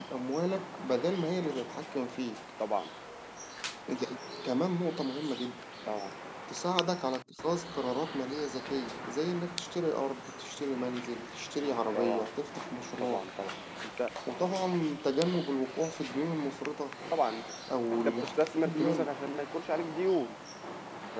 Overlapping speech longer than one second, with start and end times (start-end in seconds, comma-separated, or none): 17.9-19.2